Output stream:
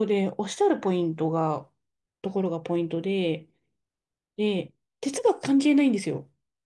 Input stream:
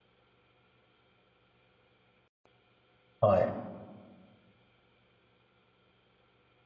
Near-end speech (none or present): present